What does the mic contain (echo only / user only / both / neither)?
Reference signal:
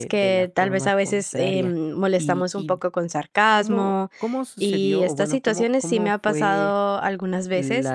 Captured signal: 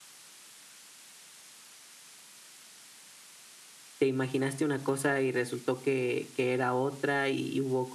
user only